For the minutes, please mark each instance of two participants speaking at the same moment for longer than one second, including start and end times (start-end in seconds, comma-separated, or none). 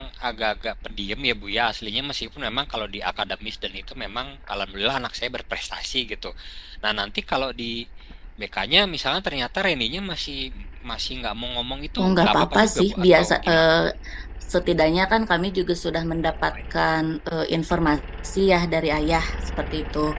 12.0-13.8